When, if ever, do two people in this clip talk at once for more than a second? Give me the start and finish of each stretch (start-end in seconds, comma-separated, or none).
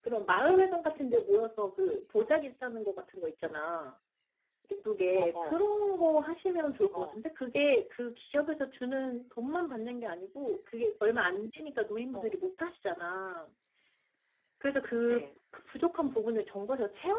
none